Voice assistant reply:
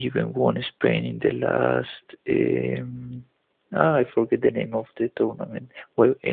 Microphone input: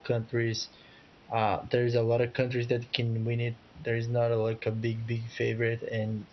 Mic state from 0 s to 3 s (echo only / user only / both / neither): user only